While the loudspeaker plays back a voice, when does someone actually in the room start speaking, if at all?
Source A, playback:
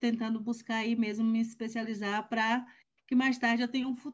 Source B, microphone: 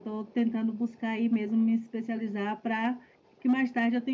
none

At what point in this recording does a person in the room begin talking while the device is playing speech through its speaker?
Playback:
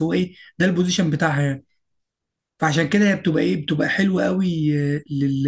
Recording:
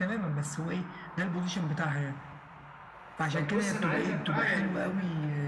3.3 s

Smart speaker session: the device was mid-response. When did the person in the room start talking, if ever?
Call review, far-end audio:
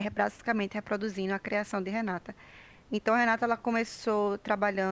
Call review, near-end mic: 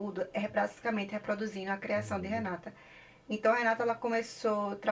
1.9 s

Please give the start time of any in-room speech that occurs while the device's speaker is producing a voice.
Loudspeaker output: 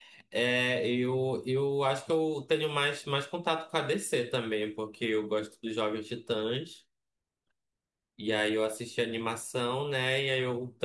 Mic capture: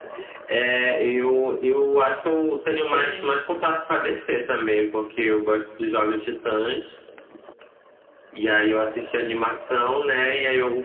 2.9 s

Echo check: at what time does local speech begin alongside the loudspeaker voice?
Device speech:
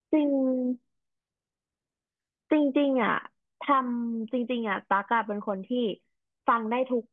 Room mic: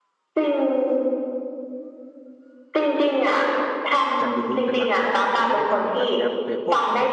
4.2 s

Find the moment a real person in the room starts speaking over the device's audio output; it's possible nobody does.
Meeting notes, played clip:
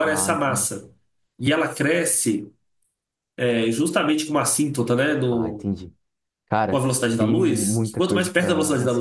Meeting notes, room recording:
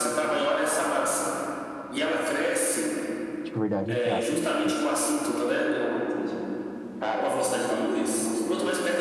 3.4 s

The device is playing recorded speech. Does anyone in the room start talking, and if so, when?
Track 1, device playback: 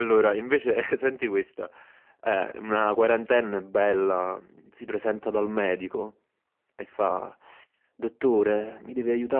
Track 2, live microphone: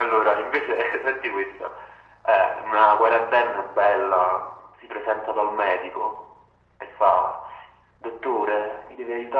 none

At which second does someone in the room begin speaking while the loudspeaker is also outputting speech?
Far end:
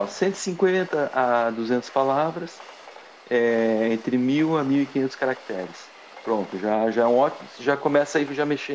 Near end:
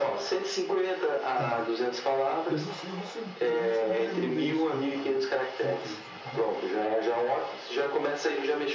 1.3 s

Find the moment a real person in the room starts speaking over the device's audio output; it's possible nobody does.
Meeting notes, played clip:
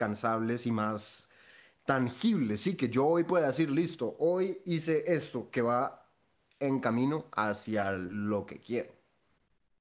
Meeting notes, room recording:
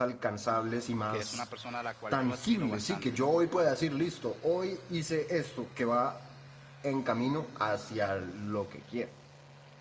1.1 s

